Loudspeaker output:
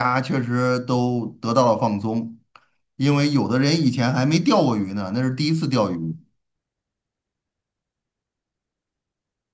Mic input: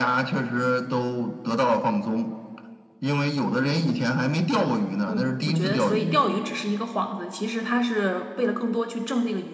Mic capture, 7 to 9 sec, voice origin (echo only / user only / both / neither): user only